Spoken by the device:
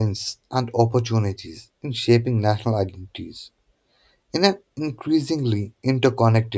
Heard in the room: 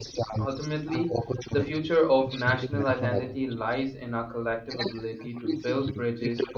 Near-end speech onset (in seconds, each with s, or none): 0.4 s